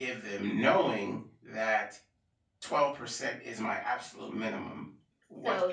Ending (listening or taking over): taking over